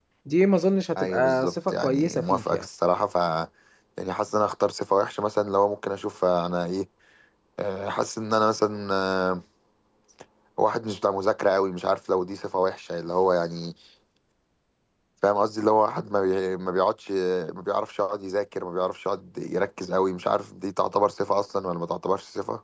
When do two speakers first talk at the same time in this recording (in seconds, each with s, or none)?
1.0 s